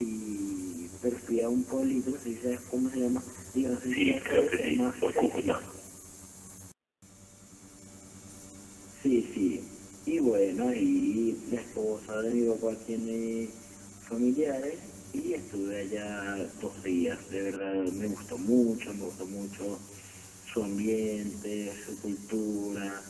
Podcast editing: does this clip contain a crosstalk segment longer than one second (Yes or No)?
Yes